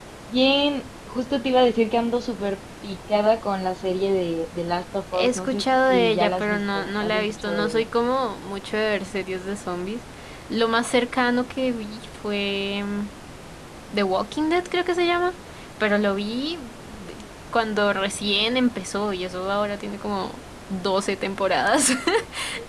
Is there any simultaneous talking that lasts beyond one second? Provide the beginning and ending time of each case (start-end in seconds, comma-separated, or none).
5.1-7.9